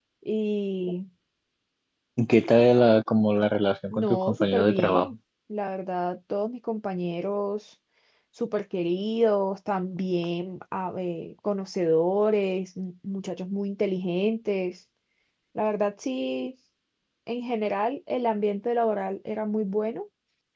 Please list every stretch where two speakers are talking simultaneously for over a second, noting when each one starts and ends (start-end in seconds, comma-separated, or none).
3.9-5.1